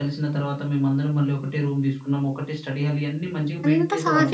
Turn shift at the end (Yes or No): Yes